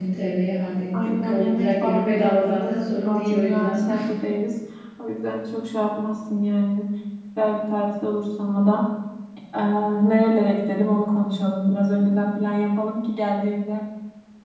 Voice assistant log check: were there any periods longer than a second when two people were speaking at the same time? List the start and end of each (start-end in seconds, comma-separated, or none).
0.9-3.8